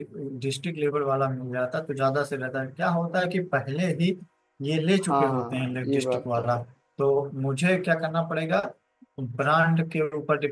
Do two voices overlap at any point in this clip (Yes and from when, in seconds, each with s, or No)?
Yes, from 5.1 s